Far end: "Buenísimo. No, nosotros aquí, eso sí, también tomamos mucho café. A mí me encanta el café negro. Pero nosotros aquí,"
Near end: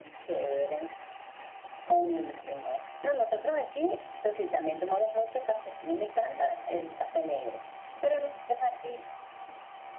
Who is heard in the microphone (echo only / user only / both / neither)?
echo only